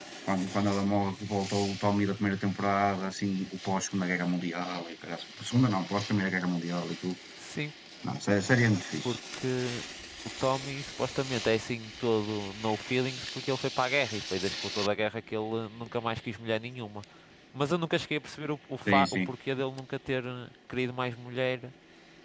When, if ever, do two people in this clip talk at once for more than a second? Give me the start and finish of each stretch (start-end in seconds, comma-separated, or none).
none